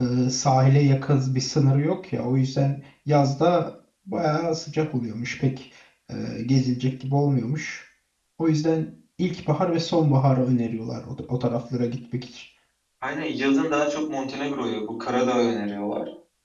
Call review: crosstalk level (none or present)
none